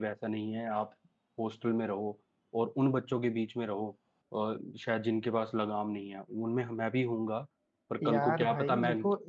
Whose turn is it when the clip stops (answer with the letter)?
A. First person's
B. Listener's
B